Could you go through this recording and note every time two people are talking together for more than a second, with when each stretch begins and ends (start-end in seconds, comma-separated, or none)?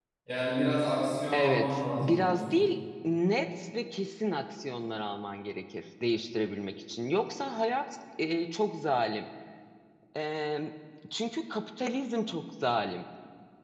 1.3-2.6